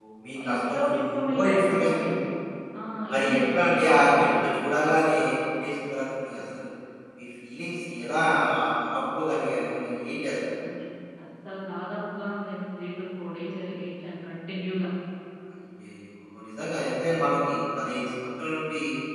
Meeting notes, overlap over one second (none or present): present